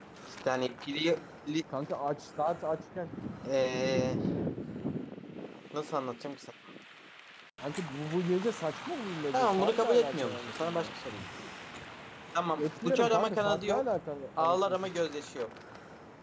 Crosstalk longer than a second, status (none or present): present